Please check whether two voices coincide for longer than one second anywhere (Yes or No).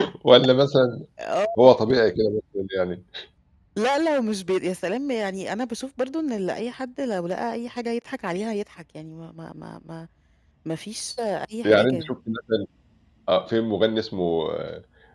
No